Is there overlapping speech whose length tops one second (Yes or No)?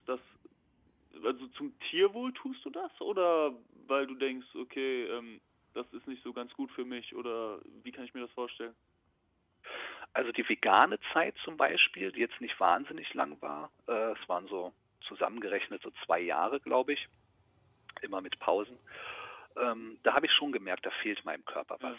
No